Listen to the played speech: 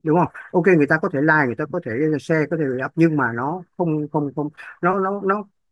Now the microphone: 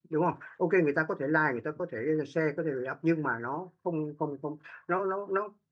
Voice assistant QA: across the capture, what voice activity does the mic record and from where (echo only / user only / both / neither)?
echo only